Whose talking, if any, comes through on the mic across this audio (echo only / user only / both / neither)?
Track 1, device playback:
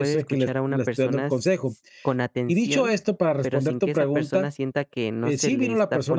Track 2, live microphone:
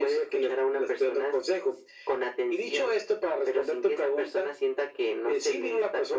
echo only